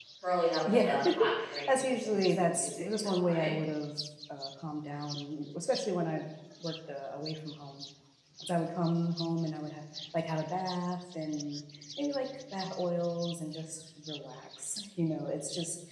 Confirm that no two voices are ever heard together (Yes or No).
No